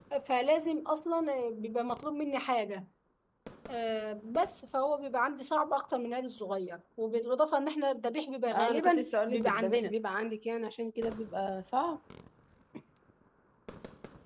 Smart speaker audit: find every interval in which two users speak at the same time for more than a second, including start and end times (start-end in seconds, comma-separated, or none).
8.5-9.9